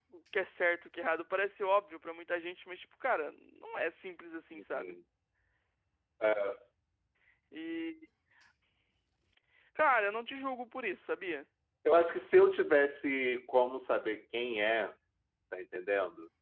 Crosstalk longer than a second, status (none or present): none